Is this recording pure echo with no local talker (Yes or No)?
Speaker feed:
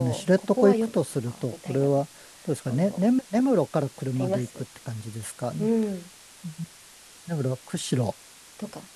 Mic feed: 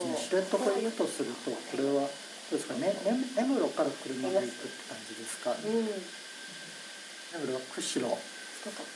Yes